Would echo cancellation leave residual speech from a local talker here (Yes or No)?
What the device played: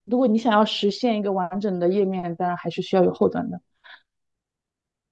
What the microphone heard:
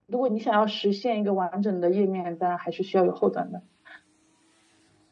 No